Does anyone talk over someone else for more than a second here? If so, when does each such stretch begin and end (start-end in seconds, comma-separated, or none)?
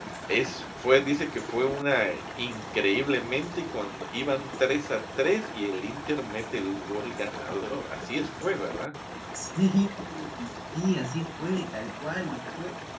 none